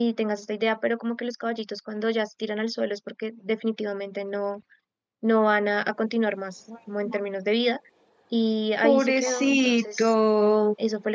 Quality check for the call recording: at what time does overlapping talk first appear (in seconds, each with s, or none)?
8.8 s